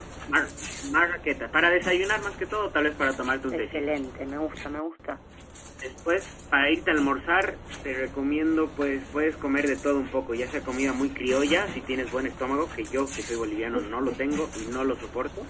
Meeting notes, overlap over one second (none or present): none